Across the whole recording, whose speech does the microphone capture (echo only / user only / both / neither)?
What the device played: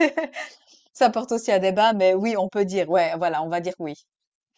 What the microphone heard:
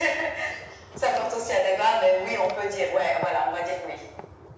echo only